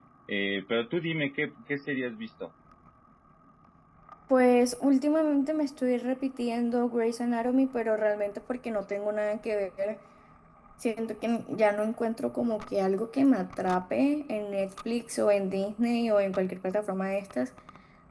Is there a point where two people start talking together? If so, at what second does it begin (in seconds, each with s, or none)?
none